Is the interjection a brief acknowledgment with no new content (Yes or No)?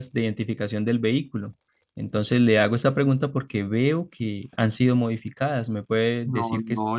No